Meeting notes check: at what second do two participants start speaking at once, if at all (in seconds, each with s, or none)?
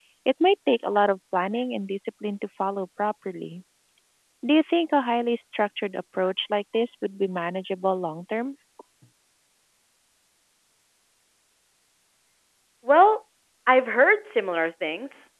none